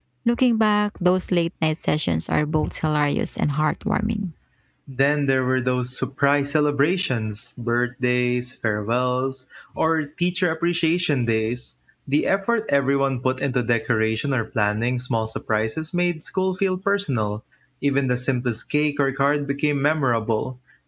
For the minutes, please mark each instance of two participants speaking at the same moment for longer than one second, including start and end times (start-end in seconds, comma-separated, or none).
none